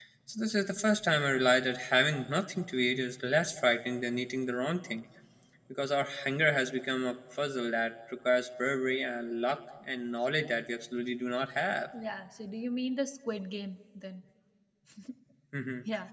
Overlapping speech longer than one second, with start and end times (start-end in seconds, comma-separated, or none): none